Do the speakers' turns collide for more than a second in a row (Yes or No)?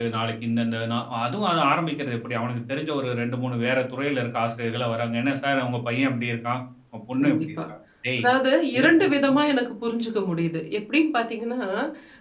No